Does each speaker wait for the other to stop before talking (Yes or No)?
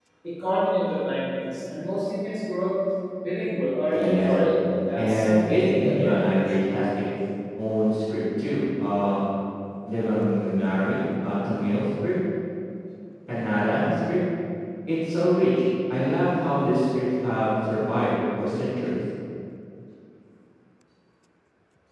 No